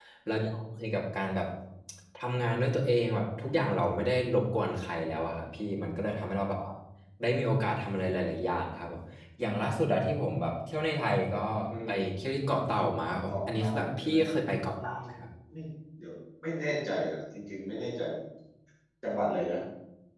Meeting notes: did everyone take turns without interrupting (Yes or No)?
No